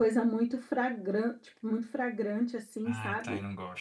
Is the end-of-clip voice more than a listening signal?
Yes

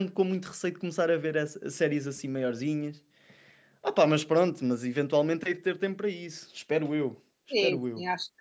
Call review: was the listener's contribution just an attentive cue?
No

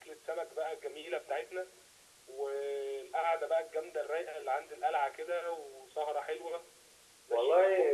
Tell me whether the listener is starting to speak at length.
Yes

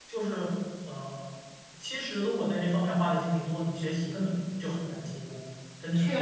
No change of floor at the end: No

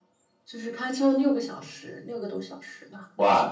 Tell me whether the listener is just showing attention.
No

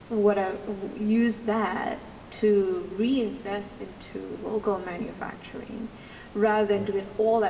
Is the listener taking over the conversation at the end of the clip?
No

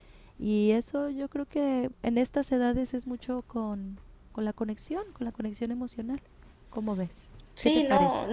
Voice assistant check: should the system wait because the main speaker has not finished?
No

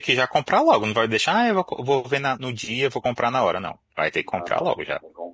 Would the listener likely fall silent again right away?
No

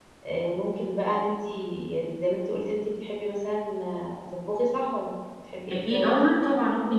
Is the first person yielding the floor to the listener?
Yes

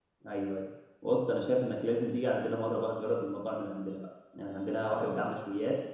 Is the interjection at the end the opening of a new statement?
No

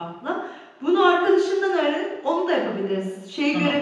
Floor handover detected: No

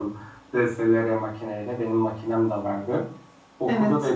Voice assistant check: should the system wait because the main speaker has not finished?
Yes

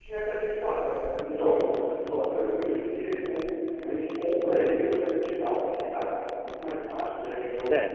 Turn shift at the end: Yes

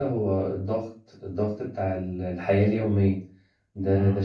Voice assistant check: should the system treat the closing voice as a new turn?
No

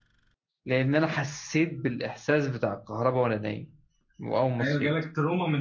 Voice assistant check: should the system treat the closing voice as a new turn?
Yes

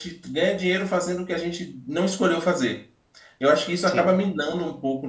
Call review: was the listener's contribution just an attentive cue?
Yes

